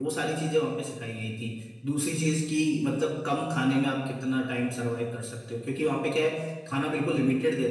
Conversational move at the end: listening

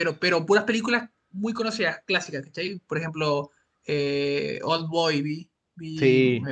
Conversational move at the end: listening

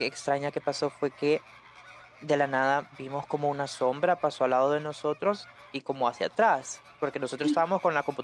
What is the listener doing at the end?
listening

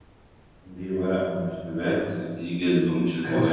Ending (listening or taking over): taking over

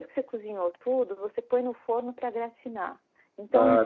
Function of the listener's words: listening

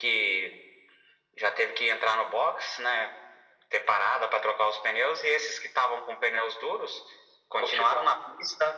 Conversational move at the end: listening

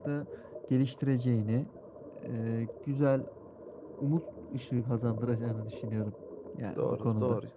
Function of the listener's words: taking over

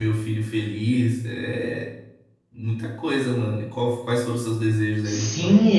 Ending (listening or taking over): taking over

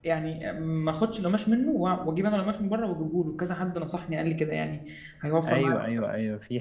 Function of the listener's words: taking over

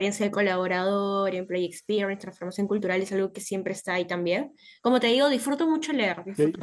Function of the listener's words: taking over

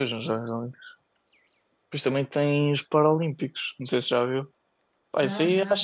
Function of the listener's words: listening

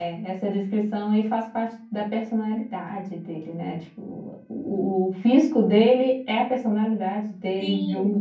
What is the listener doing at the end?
taking over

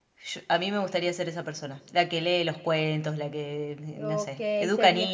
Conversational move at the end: taking over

